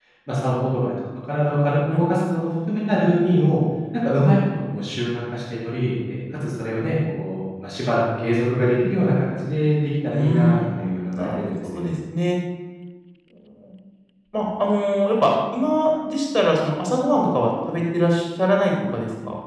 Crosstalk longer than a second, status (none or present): present